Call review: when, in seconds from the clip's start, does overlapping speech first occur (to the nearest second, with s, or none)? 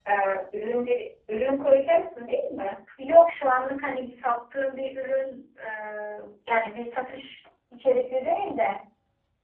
none